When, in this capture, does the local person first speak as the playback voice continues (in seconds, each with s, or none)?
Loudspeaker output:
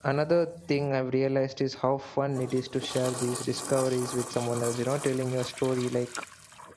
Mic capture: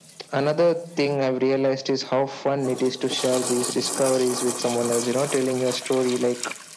none